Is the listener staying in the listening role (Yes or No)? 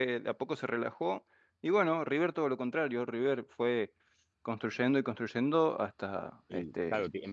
No